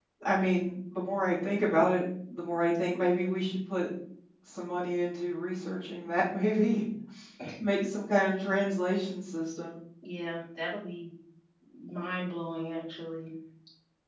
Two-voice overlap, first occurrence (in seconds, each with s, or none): none